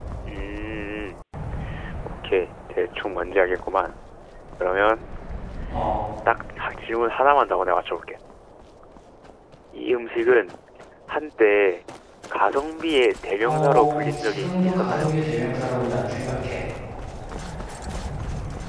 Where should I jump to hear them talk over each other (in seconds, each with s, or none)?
13.4 s